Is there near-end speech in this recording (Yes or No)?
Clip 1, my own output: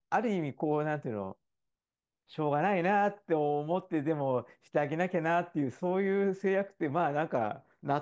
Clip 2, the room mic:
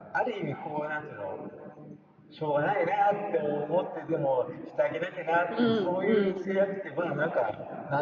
Yes